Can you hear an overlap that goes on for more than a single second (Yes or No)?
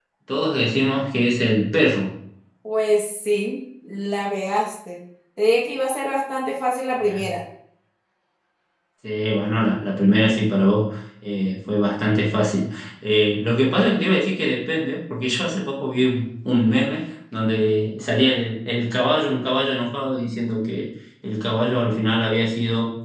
No